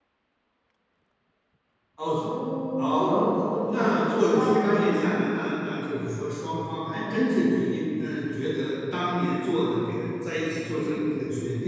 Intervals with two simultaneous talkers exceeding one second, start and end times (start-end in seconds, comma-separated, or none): 3.7-4.9